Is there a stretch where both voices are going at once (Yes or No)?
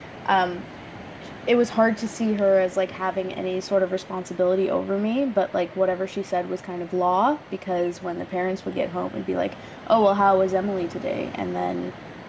No